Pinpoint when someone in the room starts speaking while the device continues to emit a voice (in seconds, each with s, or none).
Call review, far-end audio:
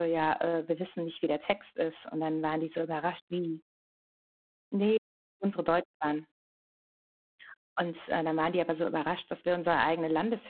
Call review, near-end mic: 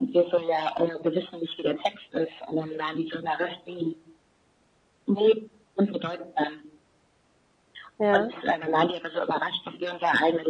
8.0 s